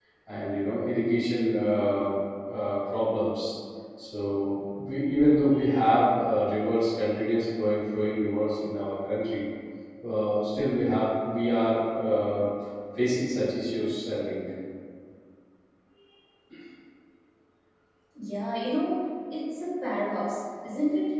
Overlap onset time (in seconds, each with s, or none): none